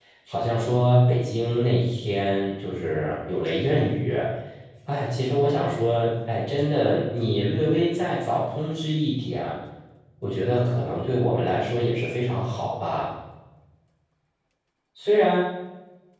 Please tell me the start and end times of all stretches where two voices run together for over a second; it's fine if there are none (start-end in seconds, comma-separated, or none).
none